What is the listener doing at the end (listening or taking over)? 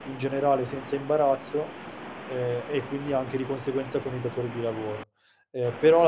listening